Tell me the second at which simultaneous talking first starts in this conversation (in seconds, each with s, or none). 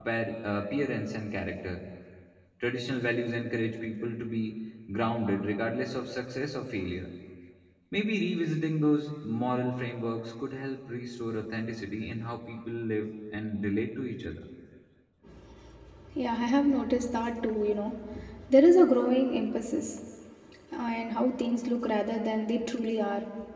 none